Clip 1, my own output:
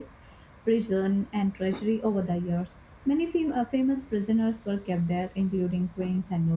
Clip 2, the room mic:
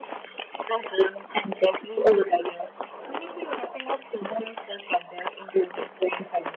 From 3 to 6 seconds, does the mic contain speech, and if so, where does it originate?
echo only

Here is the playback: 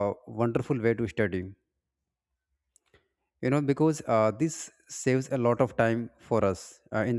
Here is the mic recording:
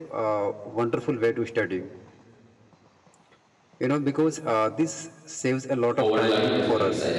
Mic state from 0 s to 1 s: echo only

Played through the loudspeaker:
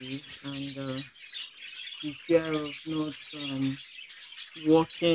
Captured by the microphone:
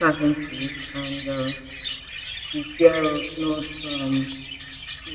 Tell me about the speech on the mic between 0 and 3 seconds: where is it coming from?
echo only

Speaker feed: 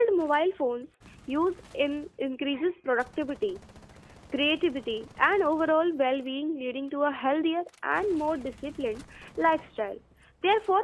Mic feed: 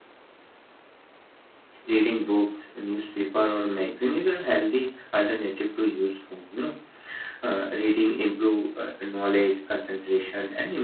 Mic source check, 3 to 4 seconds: user only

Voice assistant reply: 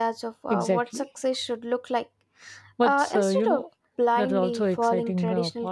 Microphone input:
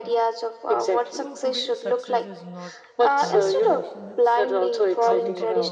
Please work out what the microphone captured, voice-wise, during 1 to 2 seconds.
both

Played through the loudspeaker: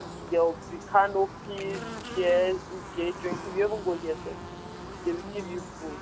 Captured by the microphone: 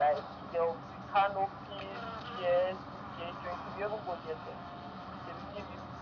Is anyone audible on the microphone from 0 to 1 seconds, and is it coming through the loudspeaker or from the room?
echo only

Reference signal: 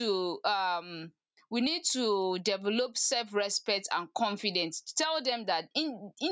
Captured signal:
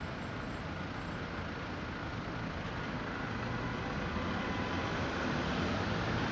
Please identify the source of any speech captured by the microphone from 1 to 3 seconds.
neither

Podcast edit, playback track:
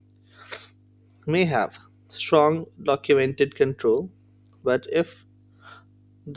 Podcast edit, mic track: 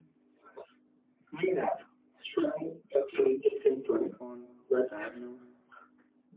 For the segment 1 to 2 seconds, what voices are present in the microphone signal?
echo only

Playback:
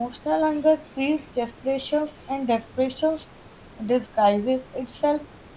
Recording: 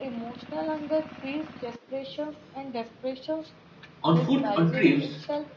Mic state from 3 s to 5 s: both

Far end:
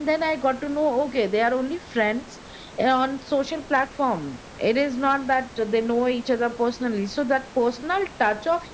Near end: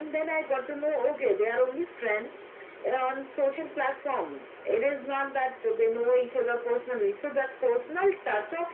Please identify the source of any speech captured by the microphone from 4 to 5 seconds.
echo only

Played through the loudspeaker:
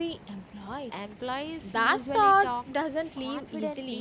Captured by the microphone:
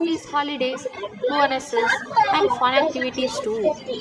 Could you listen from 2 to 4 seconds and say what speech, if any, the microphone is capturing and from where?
both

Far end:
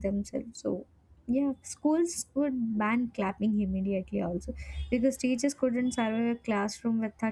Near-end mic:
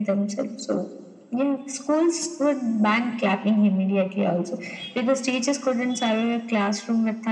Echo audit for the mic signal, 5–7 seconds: echo only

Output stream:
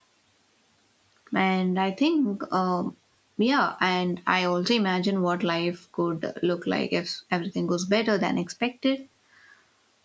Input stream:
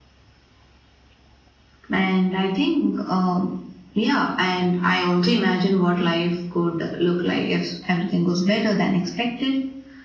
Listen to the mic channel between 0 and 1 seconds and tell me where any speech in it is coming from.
neither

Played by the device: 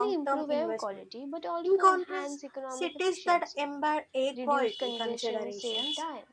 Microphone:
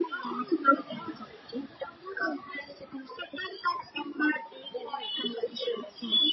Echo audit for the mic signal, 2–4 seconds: echo only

